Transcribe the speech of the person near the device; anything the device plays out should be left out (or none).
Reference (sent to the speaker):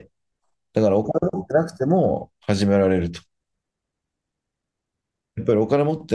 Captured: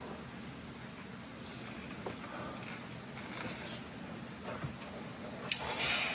none